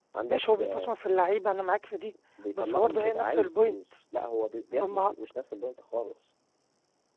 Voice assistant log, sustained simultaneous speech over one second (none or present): present